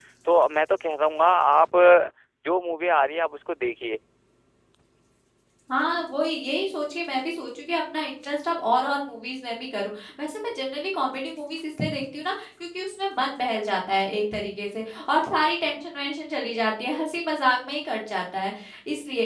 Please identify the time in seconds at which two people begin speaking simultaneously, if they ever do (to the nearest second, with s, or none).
none